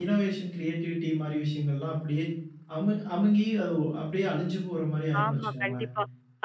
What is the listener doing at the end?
taking over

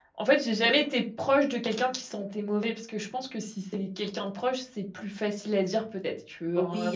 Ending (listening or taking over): taking over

